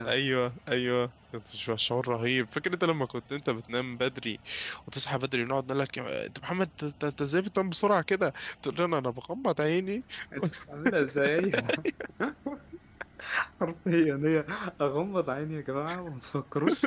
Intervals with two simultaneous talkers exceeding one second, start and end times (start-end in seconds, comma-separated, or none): none